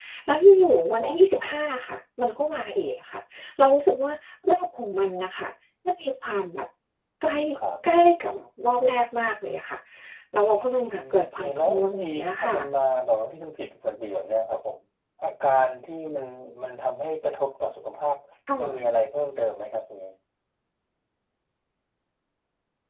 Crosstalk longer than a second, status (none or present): present